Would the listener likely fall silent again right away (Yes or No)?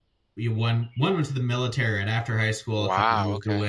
Yes